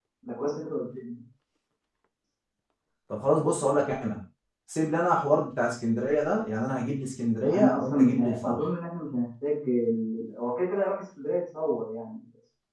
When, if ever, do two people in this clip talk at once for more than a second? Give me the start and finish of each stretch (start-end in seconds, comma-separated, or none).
7.4-8.6